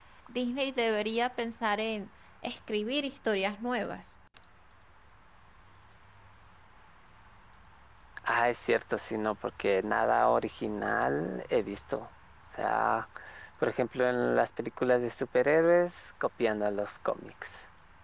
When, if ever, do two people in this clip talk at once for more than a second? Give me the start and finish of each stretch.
none

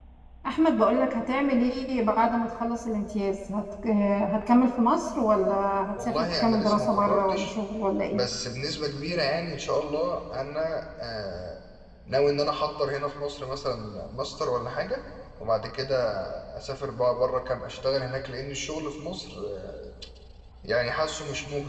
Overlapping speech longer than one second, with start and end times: 6.0-7.5

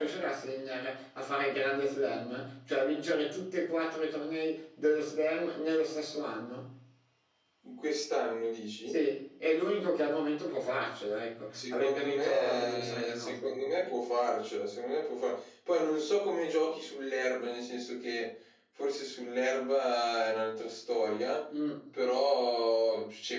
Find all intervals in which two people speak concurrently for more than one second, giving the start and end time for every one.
11.5-13.7

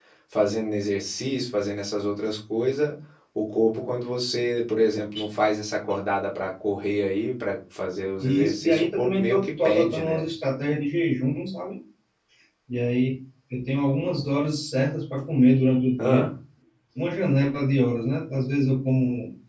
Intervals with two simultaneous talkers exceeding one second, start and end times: 8.2-10.2

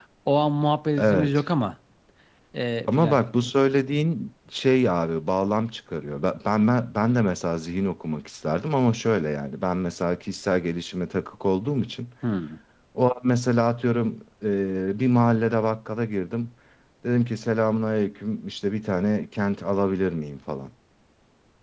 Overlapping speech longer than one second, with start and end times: none

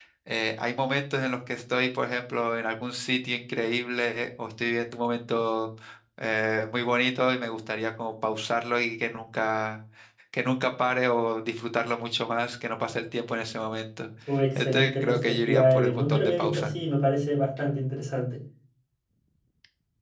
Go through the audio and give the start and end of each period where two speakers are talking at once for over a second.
14.6-16.7

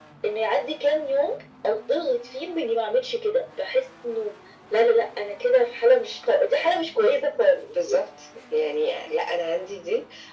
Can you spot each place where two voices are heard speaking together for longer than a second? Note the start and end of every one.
none

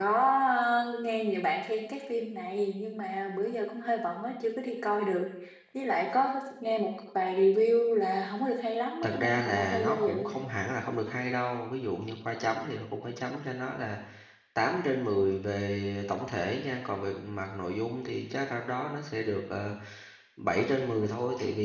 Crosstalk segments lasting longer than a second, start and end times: 9.0-10.4

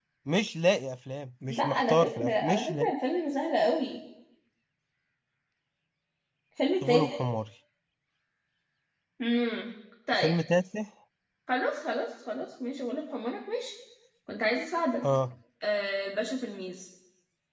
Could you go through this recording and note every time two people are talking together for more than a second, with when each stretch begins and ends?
1.5-2.9

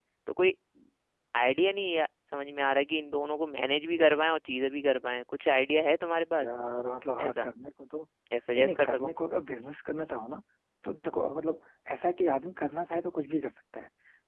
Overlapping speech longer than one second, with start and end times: none

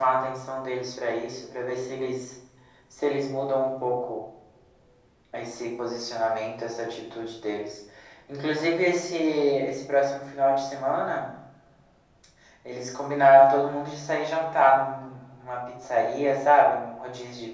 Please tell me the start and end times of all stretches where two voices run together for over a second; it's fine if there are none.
none

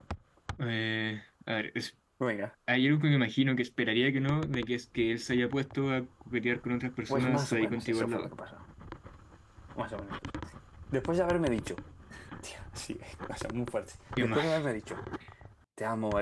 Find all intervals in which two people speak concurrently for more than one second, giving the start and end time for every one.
7.1-8.3

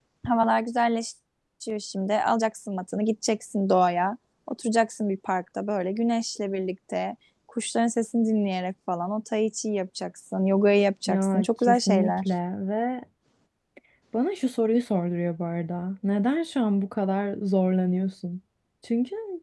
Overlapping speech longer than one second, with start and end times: 11.1-12.3

